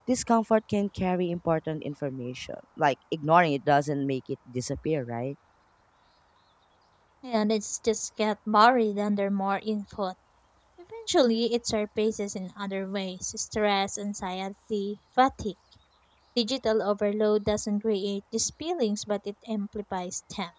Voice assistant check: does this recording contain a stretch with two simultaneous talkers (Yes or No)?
No